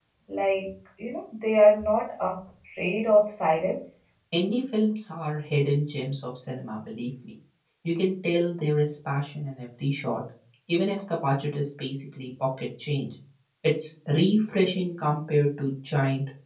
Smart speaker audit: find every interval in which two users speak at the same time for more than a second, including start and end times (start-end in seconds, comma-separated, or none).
none